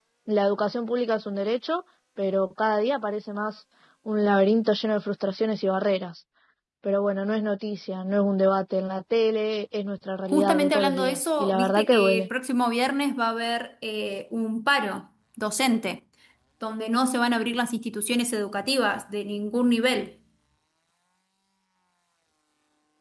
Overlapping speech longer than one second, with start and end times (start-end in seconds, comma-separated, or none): 10.3-12.3